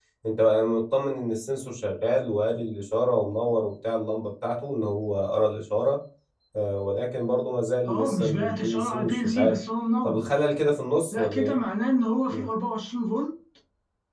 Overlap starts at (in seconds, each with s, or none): 7.8 s